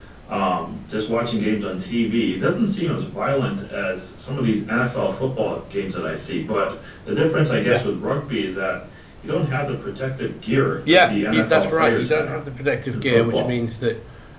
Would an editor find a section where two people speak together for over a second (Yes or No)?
Yes